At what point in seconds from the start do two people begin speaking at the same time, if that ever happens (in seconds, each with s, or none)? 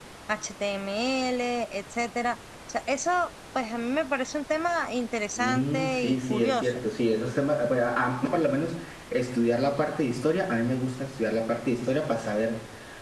5.4 s